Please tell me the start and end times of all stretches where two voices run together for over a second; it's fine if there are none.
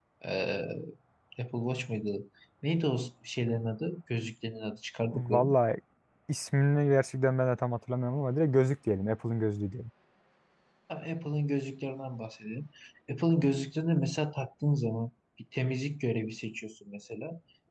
none

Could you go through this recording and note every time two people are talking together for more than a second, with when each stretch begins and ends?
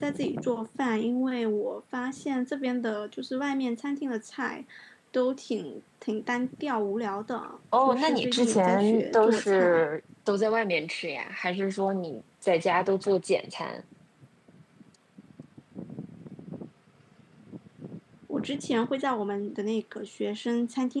7.9-9.8

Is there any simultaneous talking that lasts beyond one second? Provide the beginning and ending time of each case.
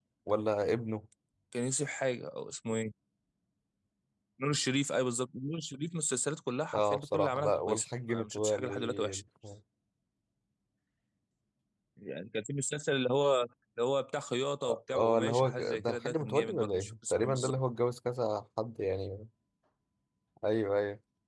6.7-9.2, 14.9-17.5

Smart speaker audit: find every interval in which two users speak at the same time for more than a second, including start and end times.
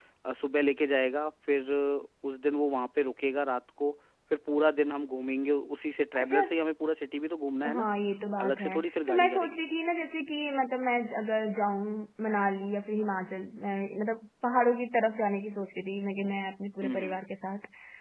8.4-9.6

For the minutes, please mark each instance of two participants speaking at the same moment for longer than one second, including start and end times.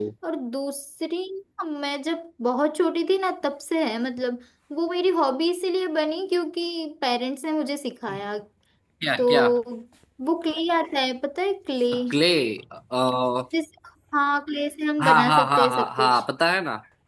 15.0-16.2

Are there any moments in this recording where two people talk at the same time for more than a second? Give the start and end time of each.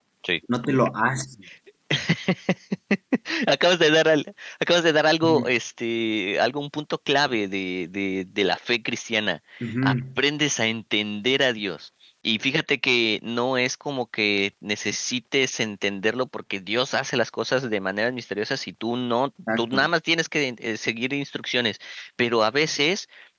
none

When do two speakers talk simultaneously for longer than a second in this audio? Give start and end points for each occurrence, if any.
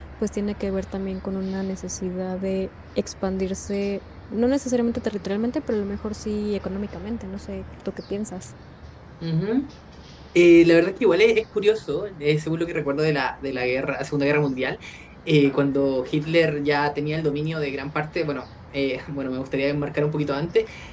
none

